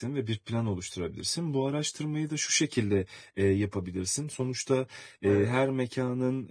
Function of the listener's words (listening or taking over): listening